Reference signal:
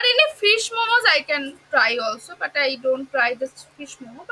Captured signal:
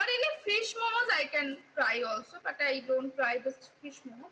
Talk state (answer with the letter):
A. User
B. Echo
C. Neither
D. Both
B